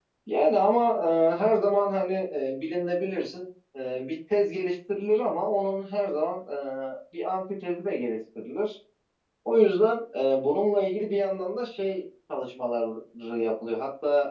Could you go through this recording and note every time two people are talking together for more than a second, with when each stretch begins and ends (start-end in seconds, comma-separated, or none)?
none